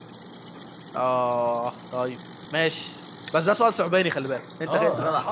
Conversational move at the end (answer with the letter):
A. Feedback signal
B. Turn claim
B